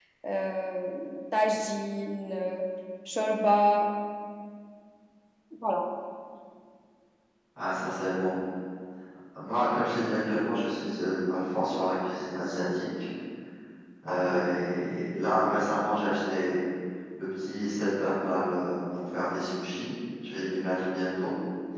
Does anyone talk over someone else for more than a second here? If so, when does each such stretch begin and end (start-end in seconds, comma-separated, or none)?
none